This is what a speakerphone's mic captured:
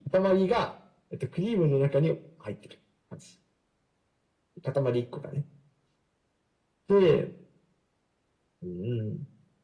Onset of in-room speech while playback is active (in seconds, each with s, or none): none